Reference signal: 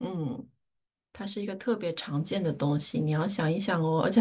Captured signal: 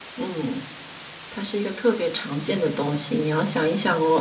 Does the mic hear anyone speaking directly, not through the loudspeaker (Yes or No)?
No